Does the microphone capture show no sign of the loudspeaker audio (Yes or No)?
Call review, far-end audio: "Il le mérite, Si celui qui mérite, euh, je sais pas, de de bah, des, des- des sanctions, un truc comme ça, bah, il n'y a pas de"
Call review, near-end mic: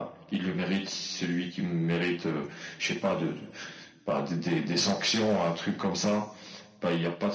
No